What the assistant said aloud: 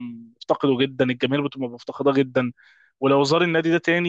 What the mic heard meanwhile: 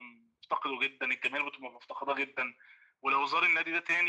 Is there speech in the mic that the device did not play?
No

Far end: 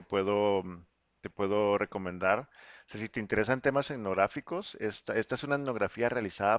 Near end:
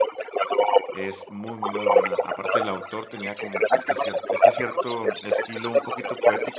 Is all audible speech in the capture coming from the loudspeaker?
No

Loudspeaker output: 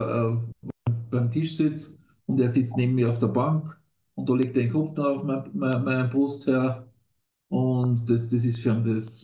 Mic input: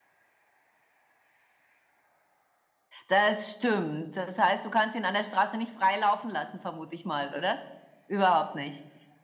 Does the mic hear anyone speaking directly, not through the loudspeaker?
Yes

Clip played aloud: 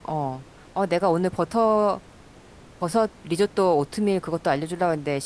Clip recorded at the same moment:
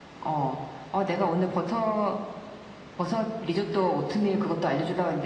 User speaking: No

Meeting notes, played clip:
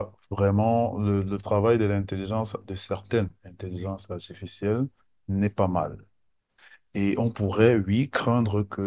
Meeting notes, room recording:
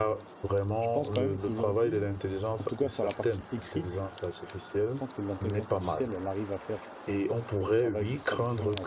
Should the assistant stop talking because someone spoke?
Yes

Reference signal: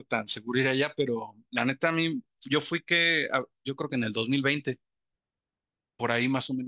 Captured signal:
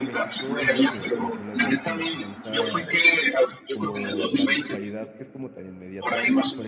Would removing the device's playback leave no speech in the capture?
No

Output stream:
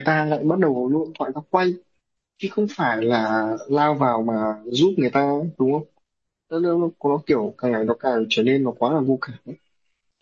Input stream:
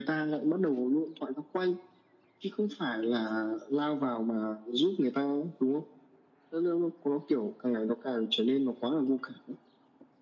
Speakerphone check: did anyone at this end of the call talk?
No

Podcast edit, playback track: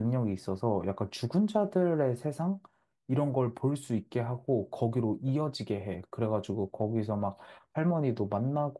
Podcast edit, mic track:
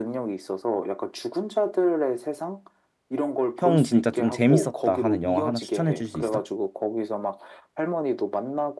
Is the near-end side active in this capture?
Yes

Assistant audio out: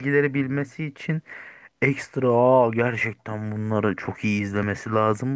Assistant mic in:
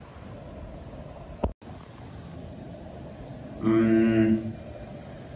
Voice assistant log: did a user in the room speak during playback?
Yes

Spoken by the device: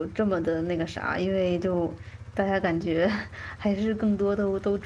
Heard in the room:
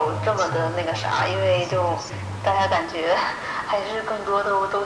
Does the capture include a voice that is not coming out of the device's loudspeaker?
Yes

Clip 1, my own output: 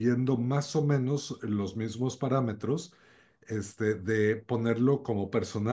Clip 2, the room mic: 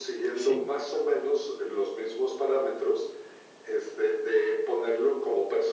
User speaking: Yes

